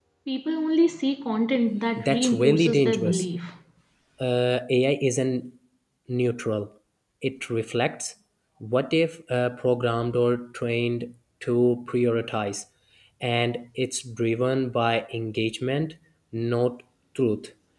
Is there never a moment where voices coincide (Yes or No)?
No